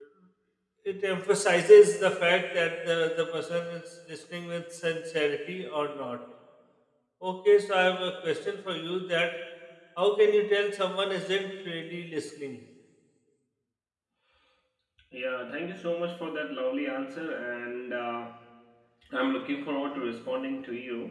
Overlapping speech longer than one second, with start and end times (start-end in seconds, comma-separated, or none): none